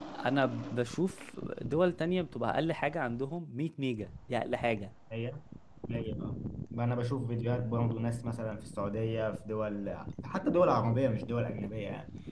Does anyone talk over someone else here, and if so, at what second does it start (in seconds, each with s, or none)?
none